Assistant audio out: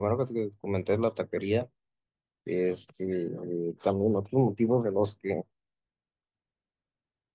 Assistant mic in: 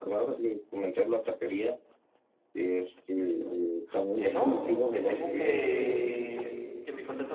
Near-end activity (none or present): present